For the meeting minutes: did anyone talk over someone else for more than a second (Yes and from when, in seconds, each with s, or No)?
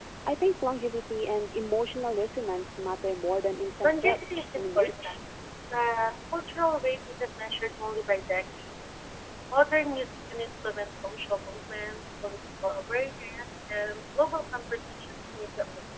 Yes, from 3.8 s